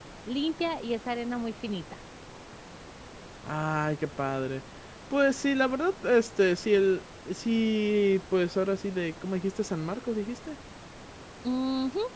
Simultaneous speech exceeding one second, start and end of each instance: none

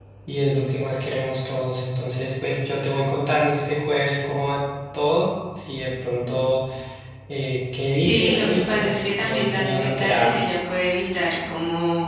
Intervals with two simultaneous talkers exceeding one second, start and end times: 8.0-10.3

